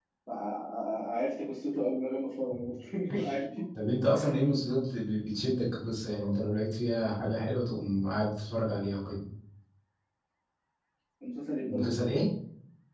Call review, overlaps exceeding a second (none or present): none